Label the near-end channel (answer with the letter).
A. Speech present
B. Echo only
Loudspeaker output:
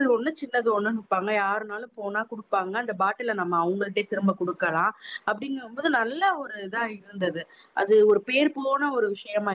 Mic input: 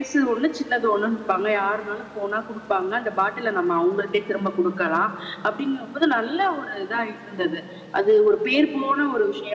B